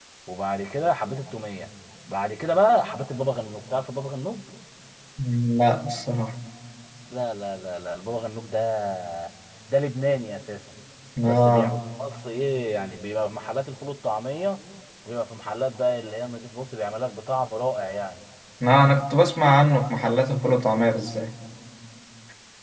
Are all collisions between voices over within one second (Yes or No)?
Yes